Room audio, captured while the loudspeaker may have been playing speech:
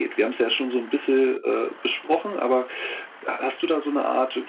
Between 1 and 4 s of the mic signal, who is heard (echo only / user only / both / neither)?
echo only